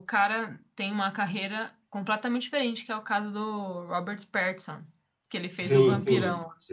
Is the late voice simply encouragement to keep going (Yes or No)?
No